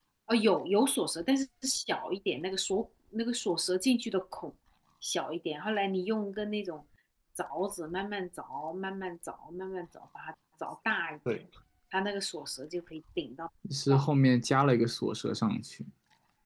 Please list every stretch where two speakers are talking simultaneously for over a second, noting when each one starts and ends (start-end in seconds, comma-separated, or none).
none